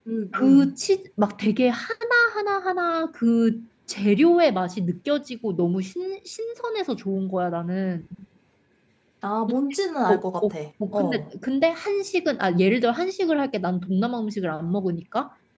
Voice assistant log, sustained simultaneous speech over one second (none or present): none